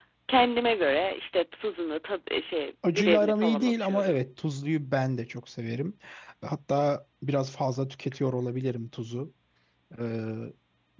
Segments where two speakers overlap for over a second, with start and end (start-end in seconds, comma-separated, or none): 2.9-4.2